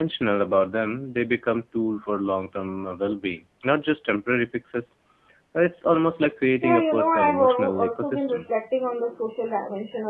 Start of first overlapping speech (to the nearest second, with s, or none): 7 s